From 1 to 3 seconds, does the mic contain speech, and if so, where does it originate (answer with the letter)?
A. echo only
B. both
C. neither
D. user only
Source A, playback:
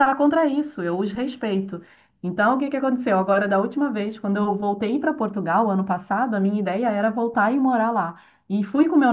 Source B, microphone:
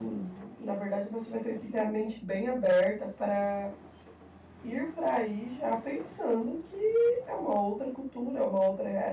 D